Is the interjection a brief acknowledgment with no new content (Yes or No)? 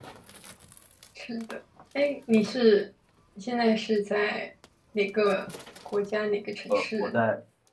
No